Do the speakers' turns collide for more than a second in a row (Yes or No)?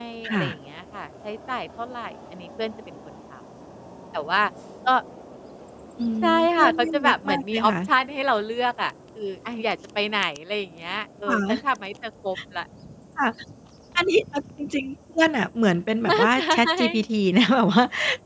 Yes